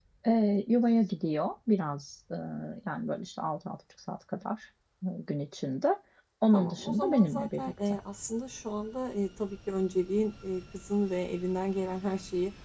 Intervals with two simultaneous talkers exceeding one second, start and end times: 6.5-7.9

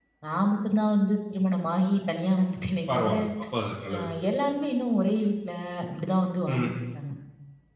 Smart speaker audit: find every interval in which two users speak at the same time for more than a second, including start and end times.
none

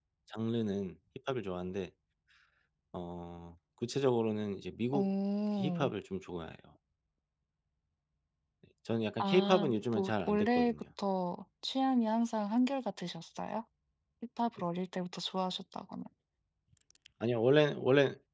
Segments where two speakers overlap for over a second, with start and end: 9.2-10.7

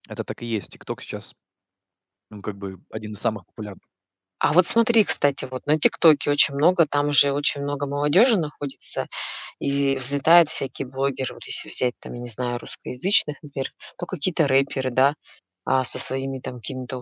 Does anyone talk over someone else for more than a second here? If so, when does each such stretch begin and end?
none

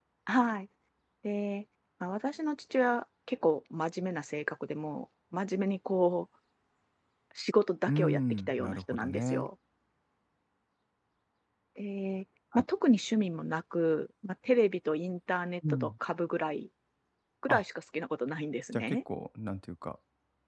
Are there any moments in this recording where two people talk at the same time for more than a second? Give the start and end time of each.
7.9-9.5

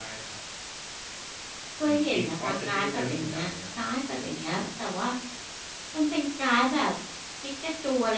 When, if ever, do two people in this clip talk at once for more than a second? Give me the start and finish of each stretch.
1.8-3.5

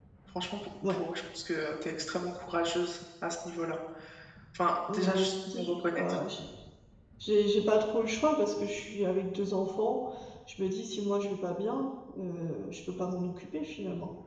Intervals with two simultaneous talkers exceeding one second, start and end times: 4.9-6.2

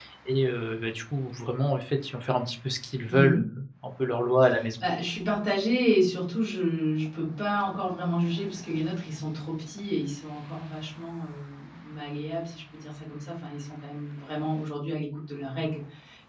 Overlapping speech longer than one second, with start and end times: none

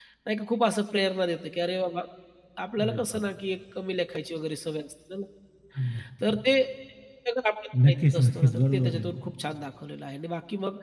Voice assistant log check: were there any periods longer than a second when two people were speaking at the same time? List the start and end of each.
7.9-9.1

